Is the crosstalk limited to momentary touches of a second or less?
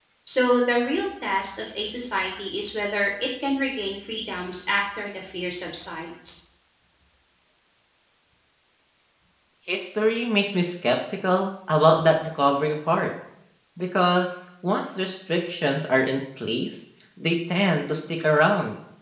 Yes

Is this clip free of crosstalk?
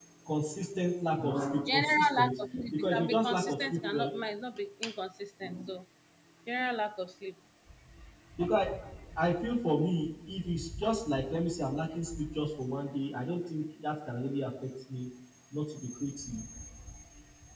No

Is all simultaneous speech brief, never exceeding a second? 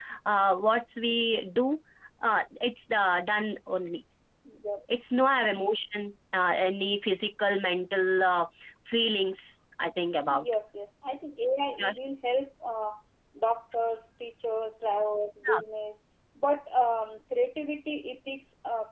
Yes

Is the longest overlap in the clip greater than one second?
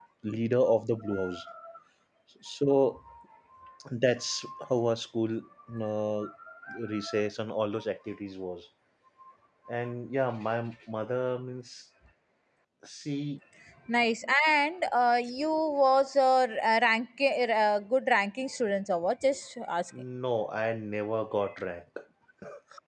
No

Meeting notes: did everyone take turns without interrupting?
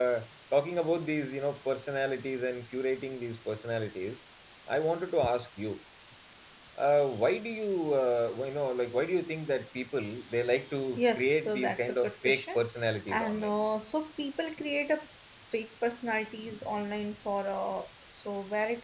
No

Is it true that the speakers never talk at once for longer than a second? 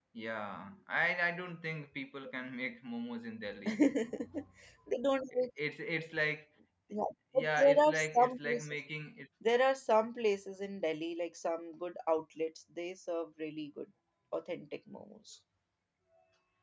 No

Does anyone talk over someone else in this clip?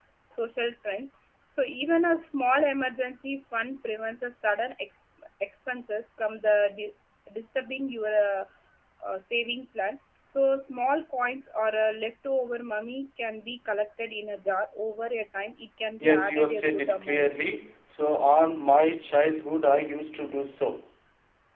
Yes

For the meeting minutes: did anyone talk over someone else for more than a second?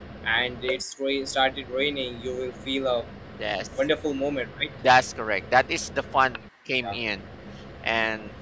No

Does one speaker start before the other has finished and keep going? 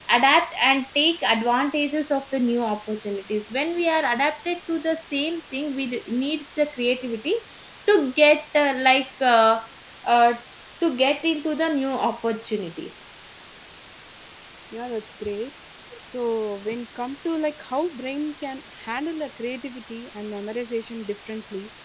No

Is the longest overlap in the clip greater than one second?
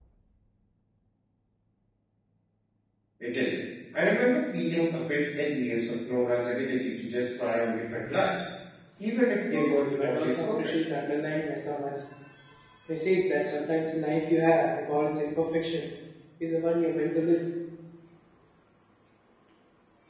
Yes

